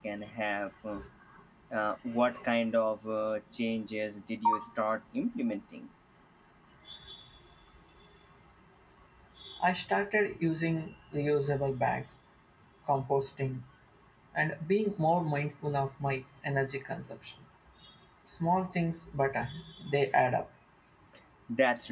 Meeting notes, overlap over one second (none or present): none